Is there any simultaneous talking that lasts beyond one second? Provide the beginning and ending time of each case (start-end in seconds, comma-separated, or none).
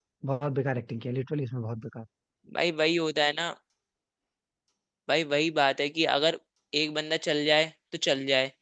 none